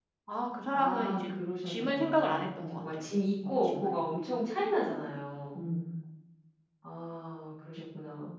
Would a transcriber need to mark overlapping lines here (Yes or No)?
Yes